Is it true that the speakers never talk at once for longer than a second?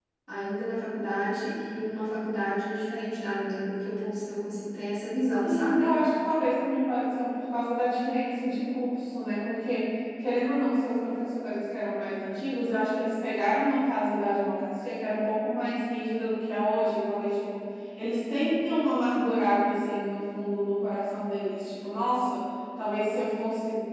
Yes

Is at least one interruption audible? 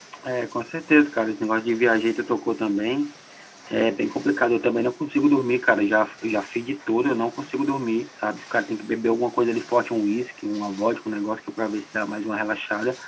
No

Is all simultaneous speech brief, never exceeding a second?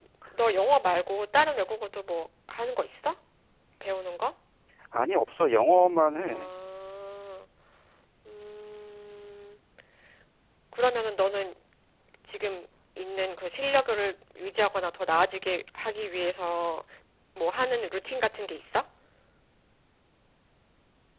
Yes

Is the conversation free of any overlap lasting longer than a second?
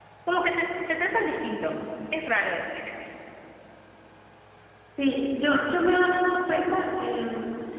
Yes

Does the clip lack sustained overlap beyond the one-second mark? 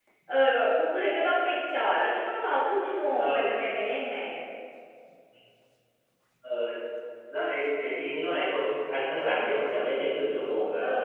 Yes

